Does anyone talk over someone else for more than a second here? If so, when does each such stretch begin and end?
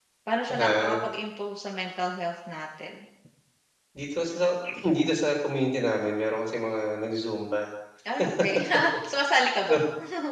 none

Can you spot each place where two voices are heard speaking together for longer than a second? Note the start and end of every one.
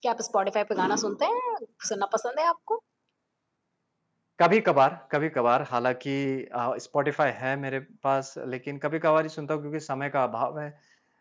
none

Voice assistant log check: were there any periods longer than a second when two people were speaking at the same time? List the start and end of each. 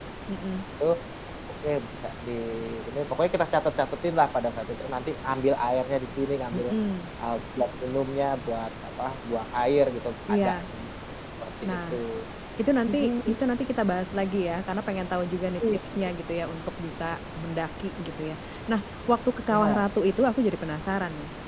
none

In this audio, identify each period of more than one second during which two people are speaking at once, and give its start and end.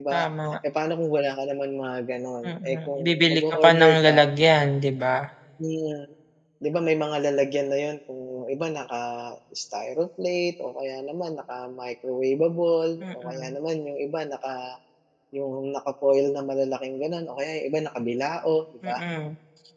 2.5-4.2

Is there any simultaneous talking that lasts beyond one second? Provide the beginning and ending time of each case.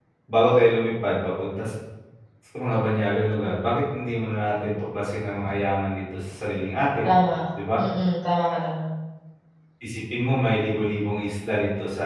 none

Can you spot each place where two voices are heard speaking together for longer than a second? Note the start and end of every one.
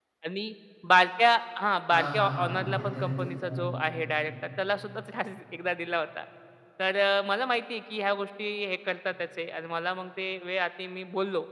1.9-4.2

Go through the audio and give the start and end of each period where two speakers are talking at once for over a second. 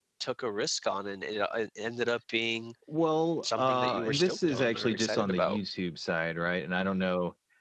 3.5-5.6

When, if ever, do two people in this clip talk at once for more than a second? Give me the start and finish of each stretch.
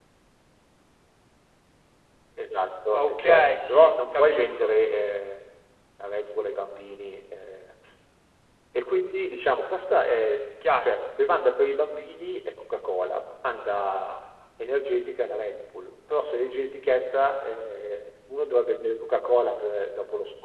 2.9-4.7

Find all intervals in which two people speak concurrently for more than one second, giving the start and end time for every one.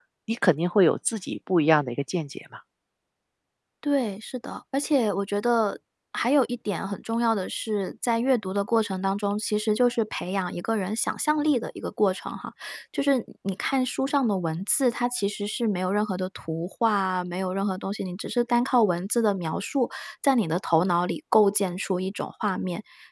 none

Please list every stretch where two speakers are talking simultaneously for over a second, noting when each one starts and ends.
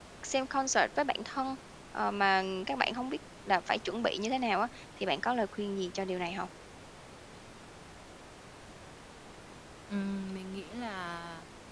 none

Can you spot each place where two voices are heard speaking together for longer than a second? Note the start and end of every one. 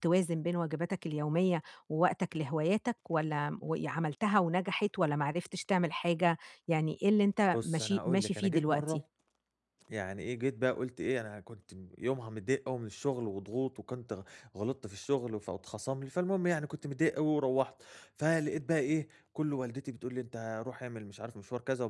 7.5-9.0

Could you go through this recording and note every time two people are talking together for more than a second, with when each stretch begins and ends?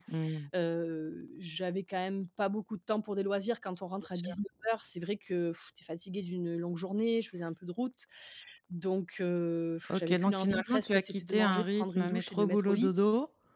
9.9-12.9

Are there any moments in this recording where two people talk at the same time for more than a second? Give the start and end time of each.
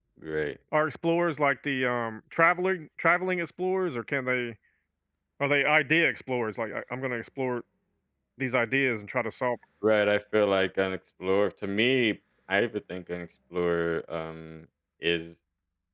none

